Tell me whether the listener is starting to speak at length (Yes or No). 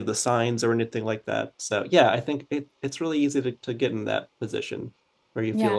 No